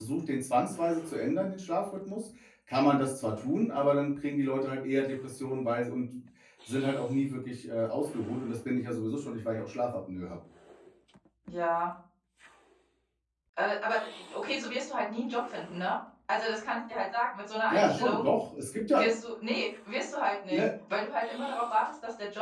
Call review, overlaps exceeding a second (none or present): none